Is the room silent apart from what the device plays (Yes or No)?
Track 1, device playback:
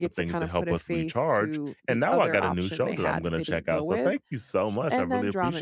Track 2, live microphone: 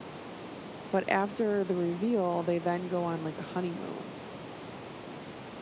No